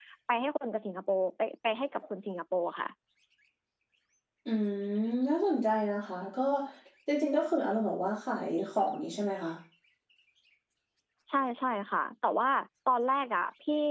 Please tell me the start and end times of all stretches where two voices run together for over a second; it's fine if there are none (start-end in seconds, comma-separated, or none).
none